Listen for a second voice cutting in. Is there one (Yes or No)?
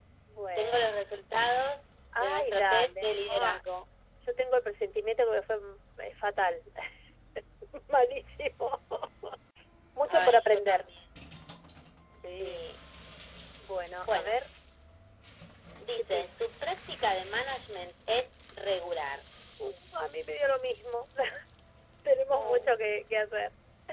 Yes